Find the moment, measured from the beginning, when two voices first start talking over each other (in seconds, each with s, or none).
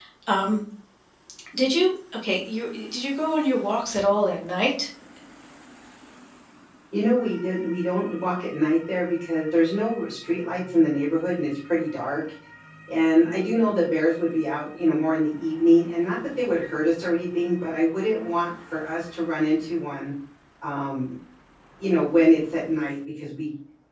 none